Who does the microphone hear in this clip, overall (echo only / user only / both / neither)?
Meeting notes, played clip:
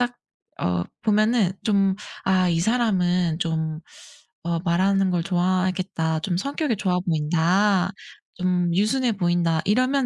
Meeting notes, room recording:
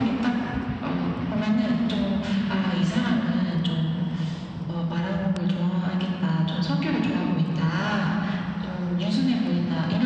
echo only